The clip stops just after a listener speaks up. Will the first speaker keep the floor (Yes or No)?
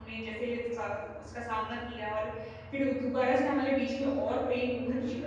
Yes